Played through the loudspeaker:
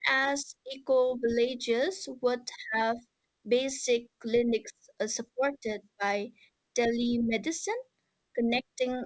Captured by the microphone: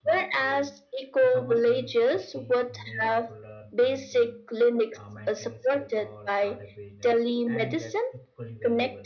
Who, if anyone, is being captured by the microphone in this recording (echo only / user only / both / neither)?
both